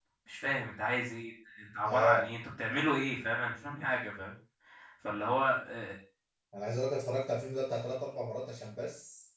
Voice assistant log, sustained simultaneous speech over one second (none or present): none